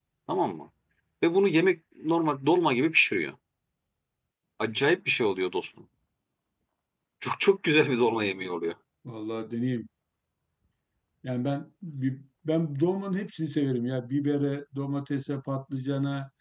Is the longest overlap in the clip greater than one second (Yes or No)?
No